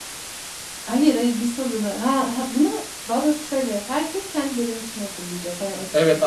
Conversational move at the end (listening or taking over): taking over